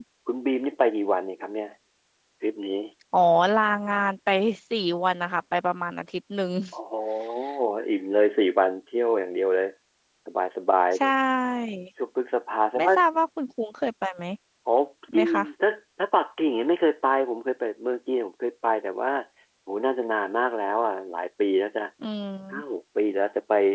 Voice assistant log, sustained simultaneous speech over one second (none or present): none